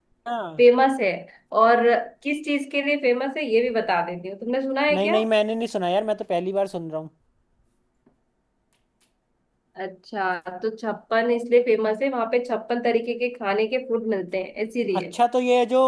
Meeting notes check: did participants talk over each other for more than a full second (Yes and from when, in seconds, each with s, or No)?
No